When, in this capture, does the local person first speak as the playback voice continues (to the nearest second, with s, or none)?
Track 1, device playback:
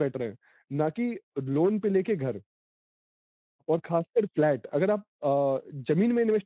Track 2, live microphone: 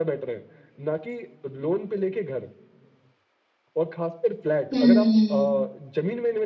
5 s